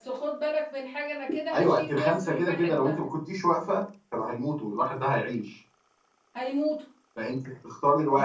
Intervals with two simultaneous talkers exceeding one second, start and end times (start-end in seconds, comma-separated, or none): 1.5-3.0